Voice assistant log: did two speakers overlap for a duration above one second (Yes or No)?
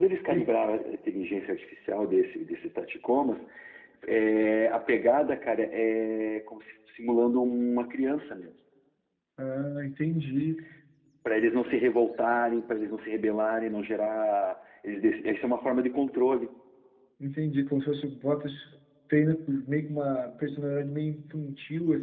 No